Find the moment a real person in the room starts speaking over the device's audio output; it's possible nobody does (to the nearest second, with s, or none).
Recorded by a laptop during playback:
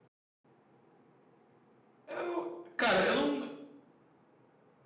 2 s